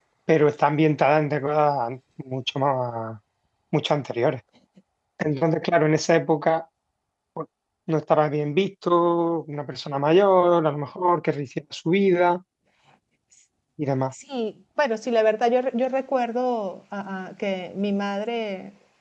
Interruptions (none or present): none